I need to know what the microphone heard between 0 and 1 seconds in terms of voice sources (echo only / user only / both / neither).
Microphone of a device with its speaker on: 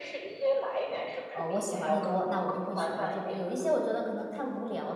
echo only